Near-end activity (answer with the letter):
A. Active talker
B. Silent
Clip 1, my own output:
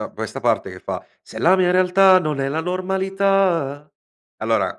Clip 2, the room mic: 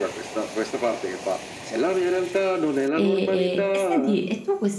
A